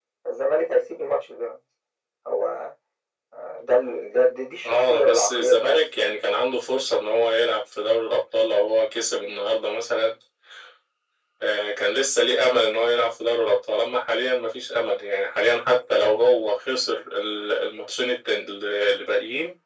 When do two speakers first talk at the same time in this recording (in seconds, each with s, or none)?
4.6 s